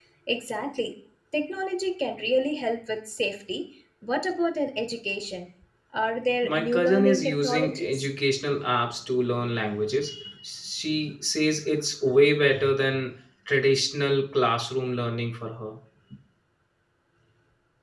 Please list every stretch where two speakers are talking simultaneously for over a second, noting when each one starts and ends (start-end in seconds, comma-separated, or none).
6.4-8.1